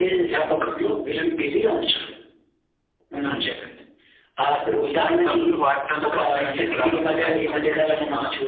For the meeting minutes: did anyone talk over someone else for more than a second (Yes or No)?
Yes